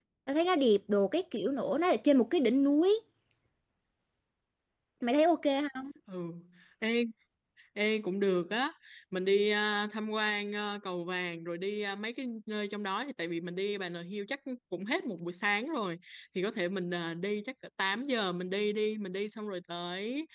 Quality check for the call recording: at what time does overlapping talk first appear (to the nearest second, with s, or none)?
none